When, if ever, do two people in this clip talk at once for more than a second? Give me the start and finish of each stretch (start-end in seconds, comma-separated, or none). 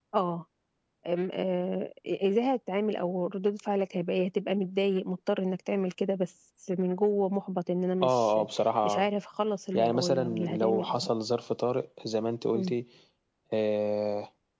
9.7-11.1